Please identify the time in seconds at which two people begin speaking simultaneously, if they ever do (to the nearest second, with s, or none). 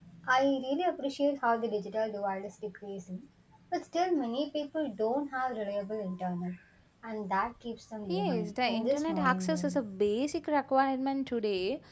8 s